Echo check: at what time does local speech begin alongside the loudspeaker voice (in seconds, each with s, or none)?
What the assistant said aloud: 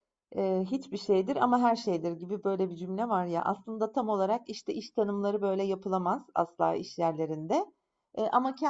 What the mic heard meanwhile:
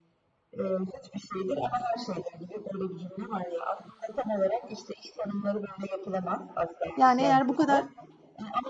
6.9 s